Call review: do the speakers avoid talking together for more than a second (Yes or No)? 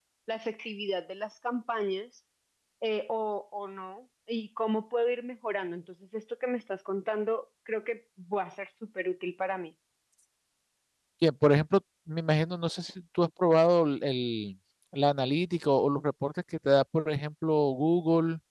Yes